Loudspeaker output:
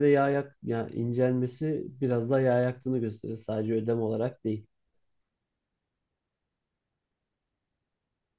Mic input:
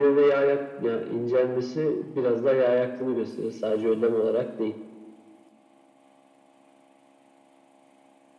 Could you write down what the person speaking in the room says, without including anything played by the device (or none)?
none